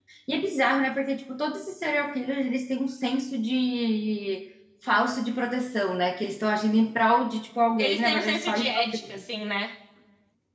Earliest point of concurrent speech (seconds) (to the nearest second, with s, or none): 8 s